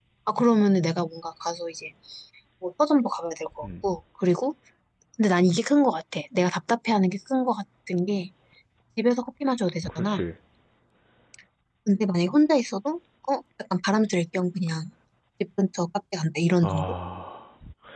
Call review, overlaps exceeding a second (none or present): none